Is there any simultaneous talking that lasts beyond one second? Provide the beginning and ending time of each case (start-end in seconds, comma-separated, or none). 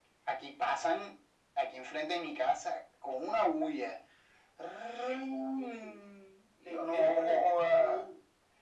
6.7-8.0